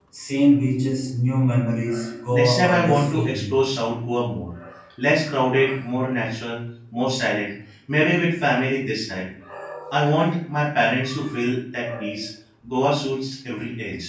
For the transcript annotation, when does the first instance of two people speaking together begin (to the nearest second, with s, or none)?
2 s